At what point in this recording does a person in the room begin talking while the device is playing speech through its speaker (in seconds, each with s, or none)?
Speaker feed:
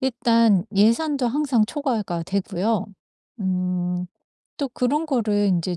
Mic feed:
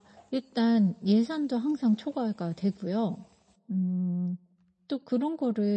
none